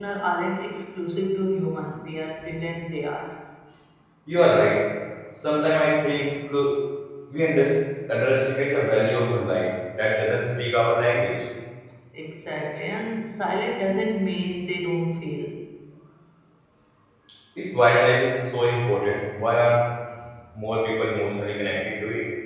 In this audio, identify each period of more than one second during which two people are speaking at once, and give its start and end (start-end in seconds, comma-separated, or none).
none